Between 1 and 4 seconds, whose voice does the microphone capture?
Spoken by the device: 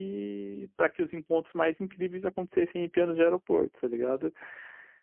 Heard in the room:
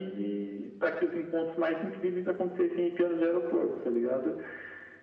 echo only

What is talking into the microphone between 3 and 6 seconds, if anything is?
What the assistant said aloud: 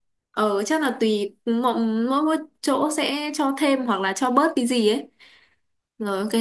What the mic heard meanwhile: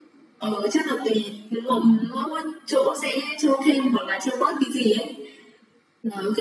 echo only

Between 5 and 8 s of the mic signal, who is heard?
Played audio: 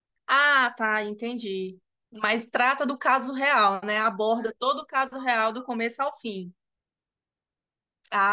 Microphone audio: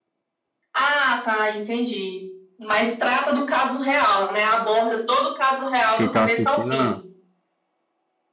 both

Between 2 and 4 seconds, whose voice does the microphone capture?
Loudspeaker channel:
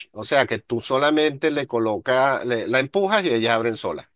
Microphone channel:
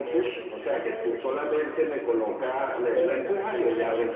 both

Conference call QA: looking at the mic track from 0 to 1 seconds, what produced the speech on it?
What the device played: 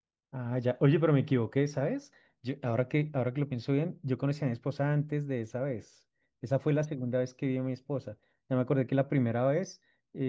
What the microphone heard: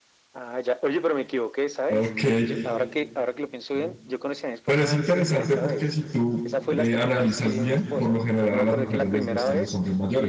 echo only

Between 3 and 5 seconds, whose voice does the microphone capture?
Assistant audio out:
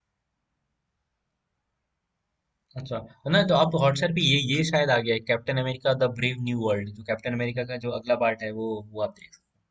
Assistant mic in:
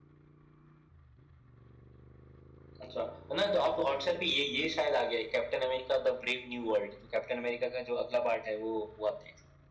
echo only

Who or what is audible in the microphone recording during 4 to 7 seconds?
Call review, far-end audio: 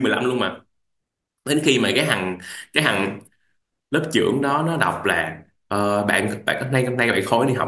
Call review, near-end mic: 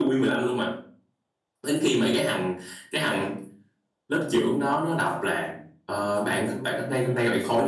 both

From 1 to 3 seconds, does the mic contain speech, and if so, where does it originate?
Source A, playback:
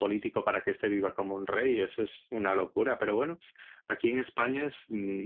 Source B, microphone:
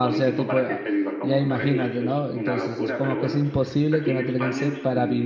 both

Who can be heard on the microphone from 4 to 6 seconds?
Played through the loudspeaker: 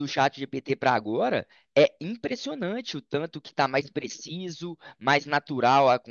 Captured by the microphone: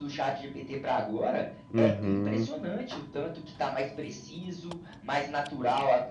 echo only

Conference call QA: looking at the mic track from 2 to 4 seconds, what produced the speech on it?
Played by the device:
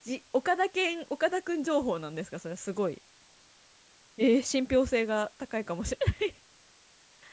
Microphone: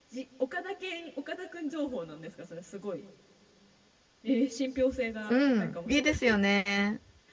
echo only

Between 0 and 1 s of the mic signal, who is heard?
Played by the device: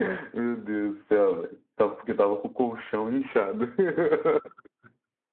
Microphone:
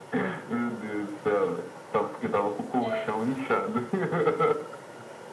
echo only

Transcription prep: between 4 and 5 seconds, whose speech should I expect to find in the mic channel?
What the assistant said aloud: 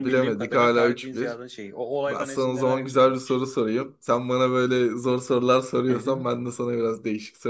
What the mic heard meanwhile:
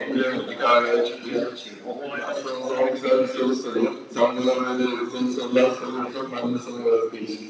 echo only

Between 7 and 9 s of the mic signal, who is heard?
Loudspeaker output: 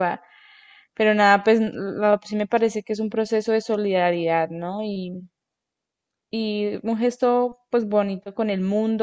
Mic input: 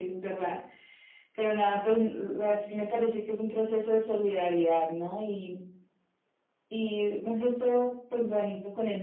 echo only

